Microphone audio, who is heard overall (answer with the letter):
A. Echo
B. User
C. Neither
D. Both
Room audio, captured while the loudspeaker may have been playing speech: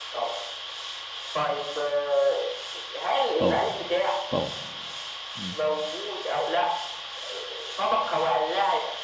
D